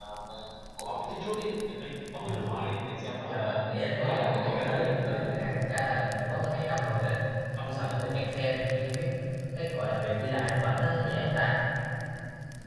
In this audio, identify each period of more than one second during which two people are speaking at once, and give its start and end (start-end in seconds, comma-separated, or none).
4.0-5.2